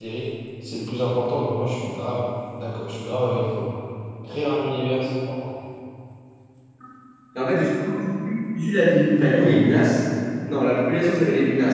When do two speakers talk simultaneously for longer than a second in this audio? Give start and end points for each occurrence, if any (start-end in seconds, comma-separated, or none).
none